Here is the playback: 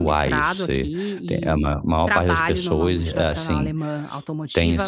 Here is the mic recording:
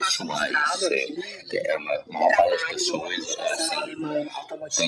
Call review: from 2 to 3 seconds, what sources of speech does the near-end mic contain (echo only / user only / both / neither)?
echo only